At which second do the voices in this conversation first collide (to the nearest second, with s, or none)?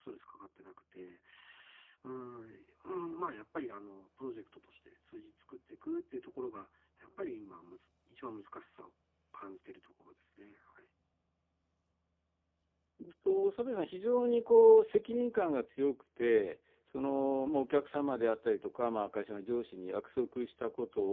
none